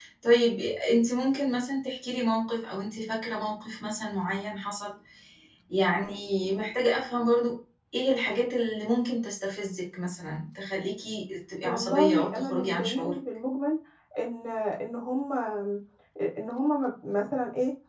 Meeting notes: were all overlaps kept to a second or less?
No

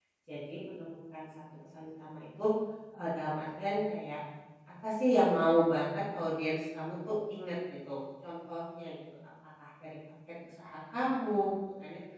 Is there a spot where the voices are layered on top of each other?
No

